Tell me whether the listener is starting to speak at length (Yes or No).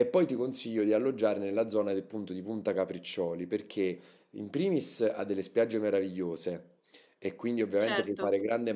No